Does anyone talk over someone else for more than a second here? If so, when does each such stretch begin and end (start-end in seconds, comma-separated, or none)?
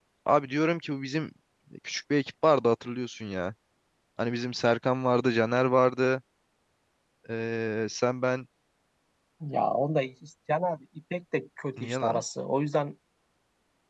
none